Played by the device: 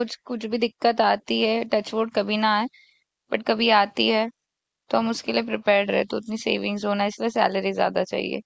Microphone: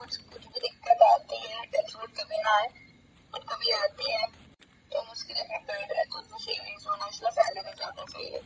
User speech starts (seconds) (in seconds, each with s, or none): none